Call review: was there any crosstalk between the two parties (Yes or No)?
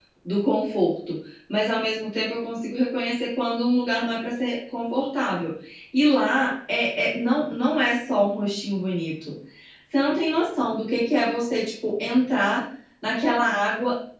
No